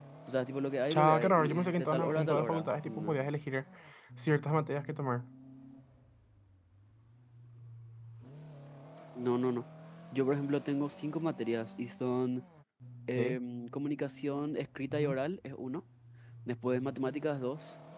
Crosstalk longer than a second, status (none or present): present